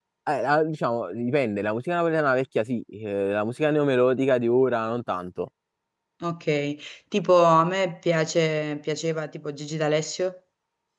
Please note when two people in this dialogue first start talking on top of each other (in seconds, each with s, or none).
none